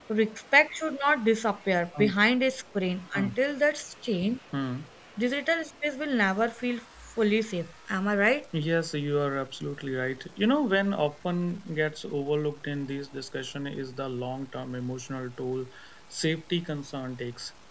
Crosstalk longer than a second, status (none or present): none